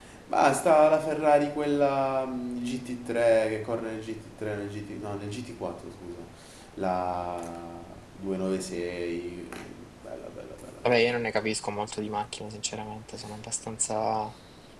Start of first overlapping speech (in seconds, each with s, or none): none